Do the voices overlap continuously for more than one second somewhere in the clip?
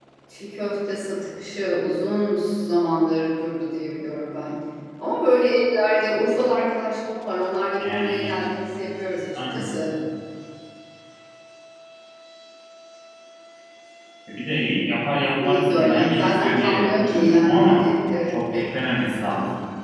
Yes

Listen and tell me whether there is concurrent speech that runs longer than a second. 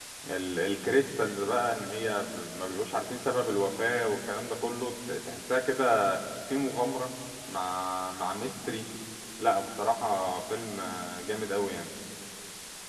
No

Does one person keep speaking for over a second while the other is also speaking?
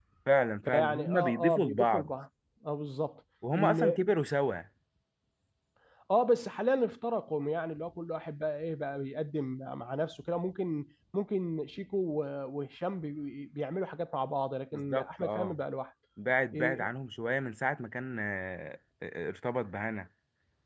Yes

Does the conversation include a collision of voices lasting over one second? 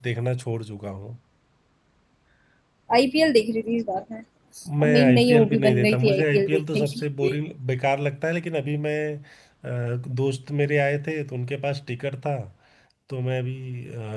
Yes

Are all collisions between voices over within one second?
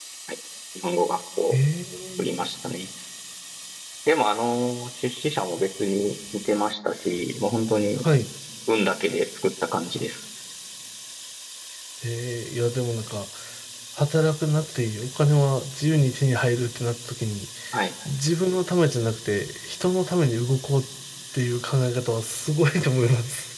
Yes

